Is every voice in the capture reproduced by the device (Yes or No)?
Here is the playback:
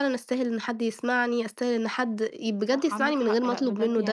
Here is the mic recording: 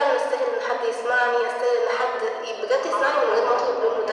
Yes